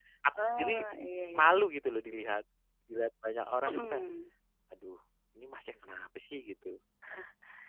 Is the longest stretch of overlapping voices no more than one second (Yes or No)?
Yes